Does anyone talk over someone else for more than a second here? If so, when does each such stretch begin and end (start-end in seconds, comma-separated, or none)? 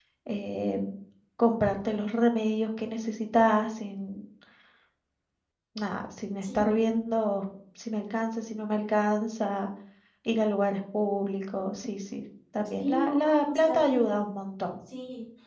12.8-14.0